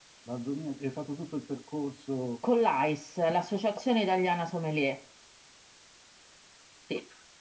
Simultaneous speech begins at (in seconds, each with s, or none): none